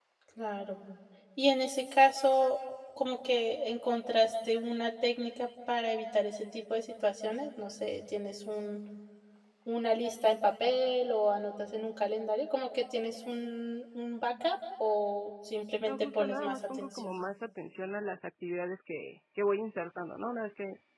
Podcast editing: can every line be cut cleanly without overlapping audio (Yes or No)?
No